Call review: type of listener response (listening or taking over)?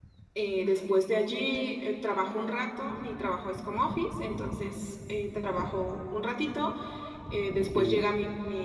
listening